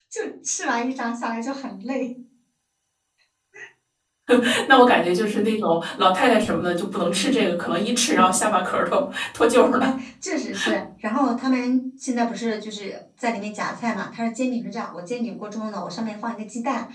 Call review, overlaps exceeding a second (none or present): none